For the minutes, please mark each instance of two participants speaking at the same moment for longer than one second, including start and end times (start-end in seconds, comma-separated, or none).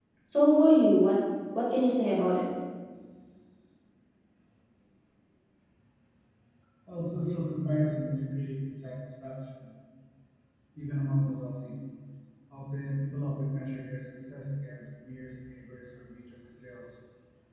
none